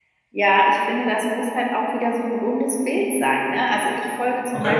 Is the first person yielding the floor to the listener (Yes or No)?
No